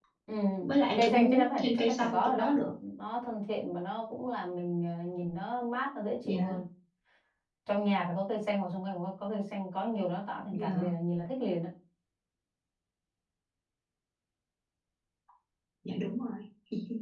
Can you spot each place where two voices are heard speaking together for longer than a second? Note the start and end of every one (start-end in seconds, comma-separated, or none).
1.0-2.5